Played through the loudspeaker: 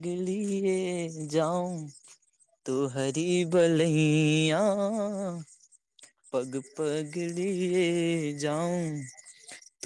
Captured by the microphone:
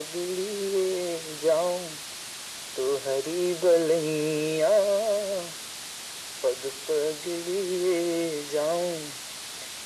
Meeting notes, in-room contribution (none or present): none